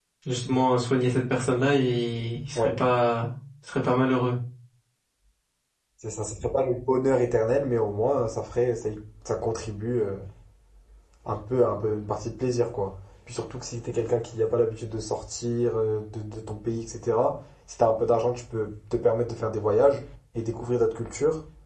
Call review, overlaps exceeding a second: none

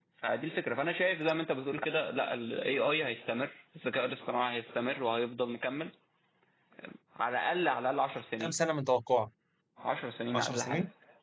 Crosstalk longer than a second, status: none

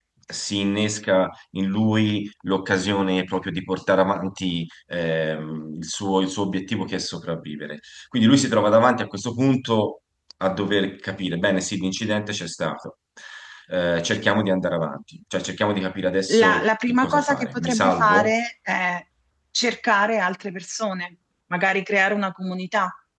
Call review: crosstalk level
present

